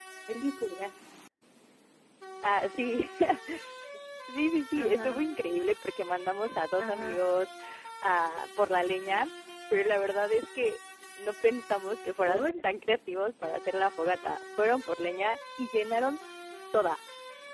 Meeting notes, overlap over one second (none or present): none